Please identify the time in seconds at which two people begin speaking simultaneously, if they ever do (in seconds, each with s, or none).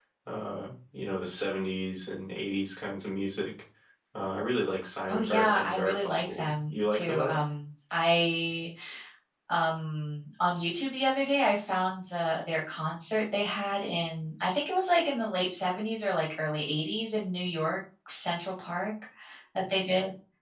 5.1 s